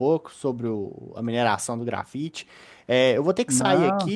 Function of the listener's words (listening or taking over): listening